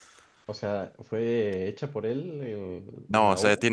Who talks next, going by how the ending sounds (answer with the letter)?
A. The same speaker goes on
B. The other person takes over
B